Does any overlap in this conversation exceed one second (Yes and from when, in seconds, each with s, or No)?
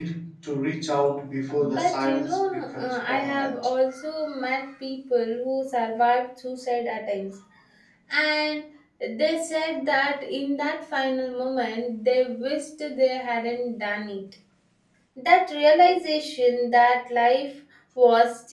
Yes, from 1.5 s